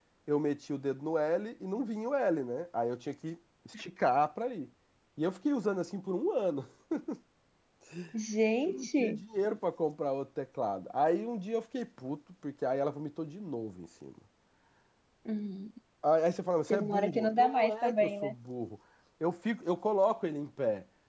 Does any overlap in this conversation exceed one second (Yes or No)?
Yes